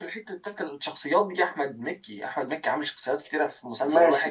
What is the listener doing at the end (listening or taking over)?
taking over